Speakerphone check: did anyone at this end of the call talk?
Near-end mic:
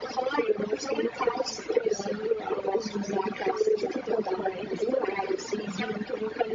No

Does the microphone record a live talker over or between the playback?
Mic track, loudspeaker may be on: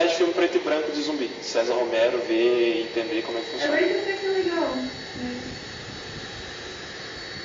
Yes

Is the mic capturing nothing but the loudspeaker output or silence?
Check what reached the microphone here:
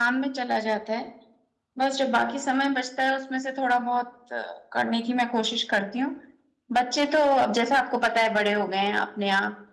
Yes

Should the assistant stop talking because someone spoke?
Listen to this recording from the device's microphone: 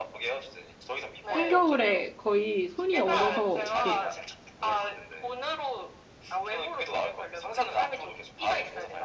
Yes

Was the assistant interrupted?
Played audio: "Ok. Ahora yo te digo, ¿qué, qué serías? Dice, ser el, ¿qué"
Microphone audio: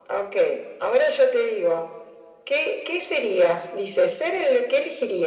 No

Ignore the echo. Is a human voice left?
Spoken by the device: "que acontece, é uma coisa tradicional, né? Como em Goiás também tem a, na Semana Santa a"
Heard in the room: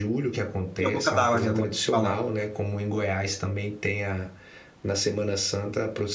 Yes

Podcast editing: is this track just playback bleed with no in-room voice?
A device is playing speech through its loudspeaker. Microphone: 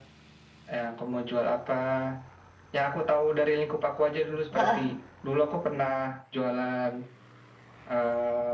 No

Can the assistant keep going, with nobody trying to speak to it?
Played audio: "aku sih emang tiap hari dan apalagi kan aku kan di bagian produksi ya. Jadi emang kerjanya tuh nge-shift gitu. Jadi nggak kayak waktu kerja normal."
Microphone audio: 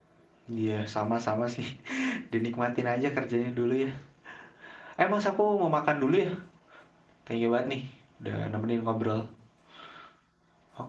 No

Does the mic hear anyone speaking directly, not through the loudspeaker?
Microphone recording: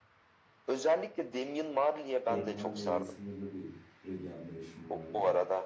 Yes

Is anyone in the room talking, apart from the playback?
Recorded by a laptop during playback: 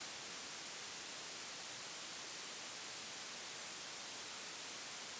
No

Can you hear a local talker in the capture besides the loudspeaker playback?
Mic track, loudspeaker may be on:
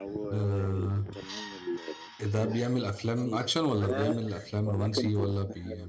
Yes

